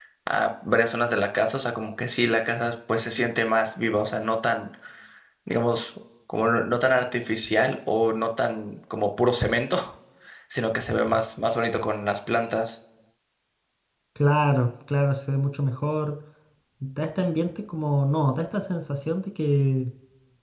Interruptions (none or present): none